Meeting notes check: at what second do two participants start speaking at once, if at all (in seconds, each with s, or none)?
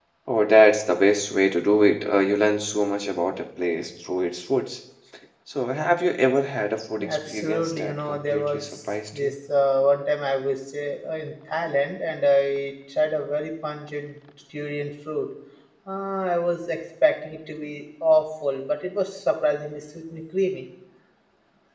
7.0 s